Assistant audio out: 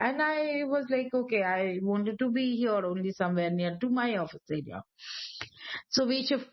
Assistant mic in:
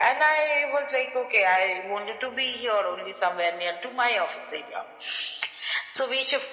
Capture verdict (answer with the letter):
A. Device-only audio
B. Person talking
A